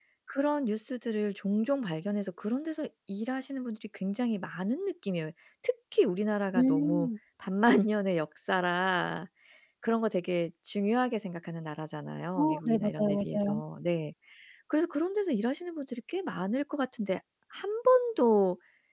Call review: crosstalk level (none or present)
present